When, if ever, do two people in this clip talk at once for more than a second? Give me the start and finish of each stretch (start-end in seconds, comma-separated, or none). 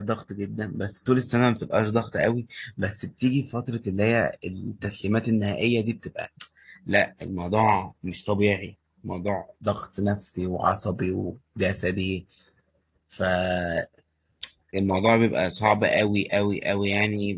none